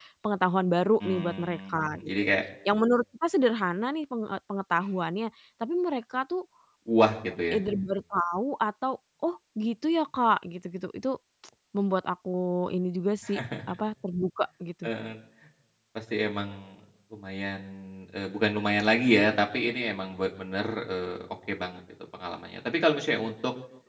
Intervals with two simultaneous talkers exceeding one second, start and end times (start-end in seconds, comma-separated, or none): 1.0-2.3